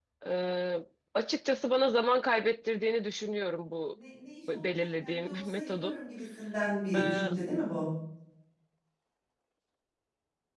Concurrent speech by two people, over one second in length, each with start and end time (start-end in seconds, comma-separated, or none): 4.5-6.0